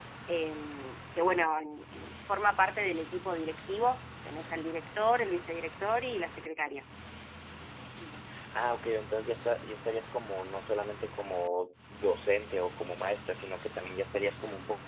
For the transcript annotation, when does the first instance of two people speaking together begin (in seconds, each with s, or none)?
none